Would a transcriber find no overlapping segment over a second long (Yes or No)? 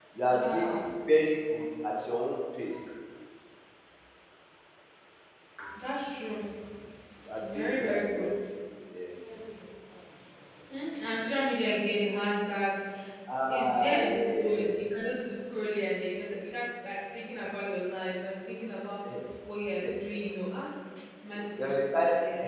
No